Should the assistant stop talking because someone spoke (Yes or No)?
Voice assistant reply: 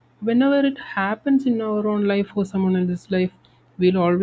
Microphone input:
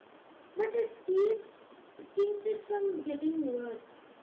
Yes